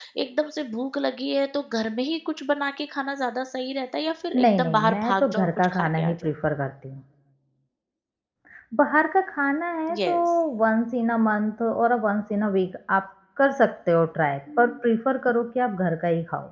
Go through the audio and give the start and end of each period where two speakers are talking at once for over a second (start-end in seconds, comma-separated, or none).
4.3-6.1